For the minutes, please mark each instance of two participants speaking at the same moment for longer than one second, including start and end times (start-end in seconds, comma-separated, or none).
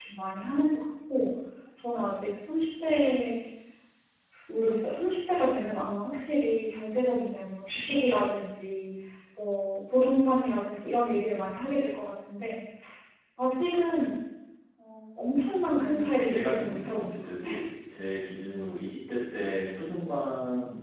15.7-17.6